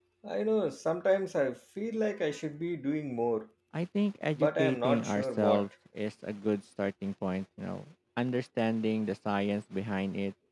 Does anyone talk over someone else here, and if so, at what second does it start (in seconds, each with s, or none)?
4.3 s